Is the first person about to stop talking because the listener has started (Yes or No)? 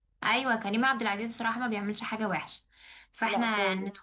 No